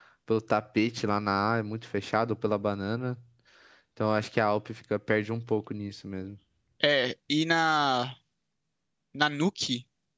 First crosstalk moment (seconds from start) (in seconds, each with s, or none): none